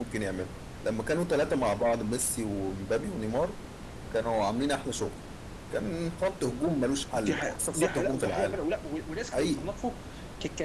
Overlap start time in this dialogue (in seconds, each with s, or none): 7.1 s